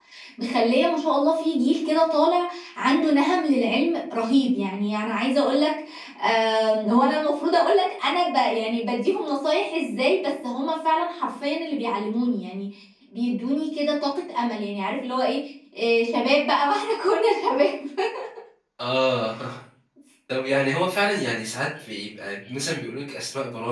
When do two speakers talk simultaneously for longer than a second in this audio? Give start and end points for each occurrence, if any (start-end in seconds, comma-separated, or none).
none